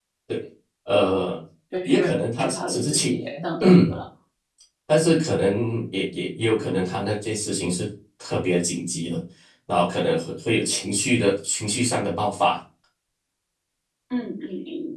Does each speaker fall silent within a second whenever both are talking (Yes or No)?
No